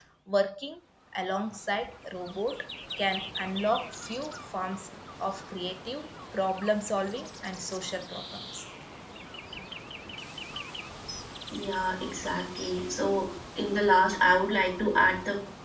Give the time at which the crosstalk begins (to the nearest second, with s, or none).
none